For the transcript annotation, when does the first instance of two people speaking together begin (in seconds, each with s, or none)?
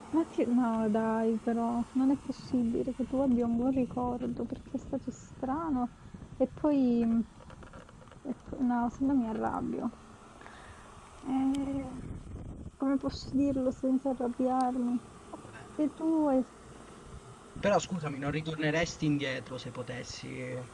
none